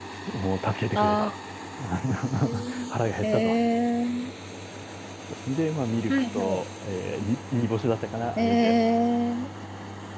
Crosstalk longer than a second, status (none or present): none